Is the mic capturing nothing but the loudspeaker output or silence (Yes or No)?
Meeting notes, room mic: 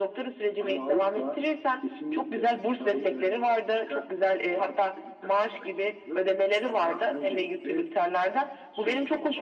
Yes